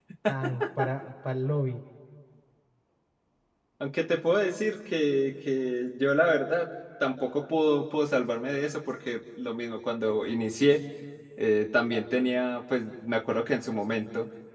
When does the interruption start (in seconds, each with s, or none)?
none